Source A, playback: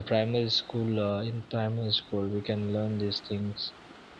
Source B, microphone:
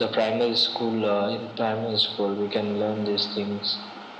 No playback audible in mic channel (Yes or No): No